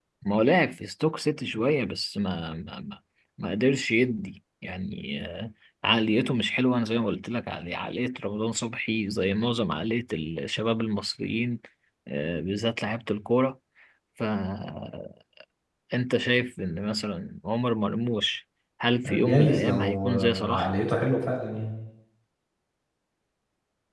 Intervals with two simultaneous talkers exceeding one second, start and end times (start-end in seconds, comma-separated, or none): 19.1-20.7